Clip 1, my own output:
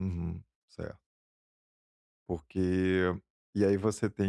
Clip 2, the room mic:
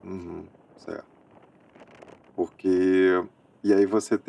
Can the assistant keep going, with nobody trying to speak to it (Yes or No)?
Yes